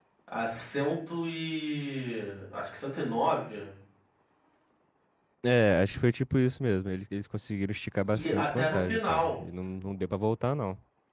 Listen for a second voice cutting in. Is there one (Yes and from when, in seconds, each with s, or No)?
Yes, from 8.0 s